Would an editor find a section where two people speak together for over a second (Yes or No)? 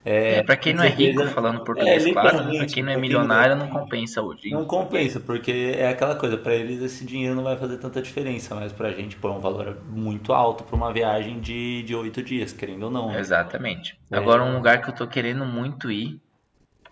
Yes